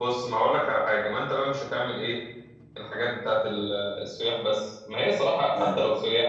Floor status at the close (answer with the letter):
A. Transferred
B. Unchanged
B